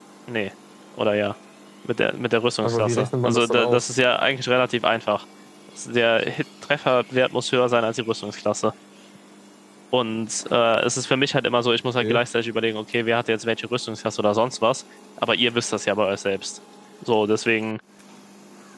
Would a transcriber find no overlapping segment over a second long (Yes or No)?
No